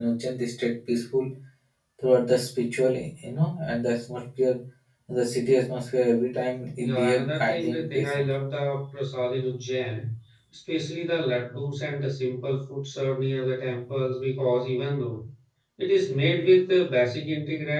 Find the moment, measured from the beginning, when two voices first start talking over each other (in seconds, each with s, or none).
6.8 s